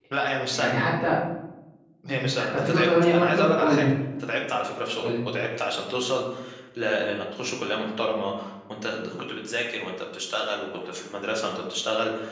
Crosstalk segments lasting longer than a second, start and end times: 2.1-3.9

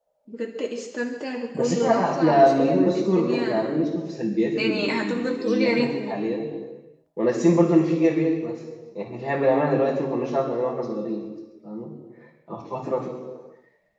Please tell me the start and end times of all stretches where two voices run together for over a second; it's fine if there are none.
1.6-3.6, 4.6-6.2

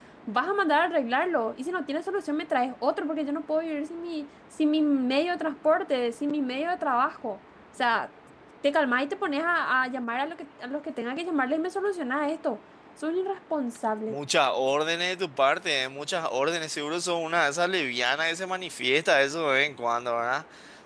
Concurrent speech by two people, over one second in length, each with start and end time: none

